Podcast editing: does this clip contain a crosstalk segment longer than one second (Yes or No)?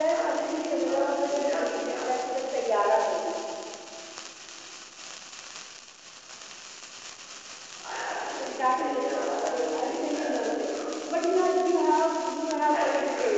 Yes